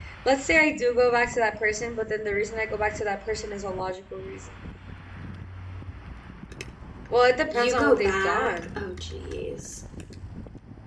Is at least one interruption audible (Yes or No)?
Yes